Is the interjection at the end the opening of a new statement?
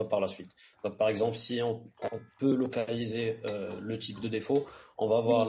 No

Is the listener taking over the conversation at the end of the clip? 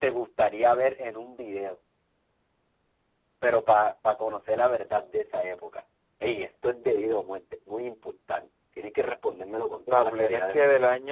Yes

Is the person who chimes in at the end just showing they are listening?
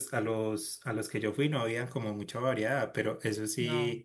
Yes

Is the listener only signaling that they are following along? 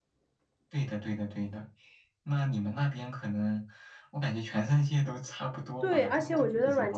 No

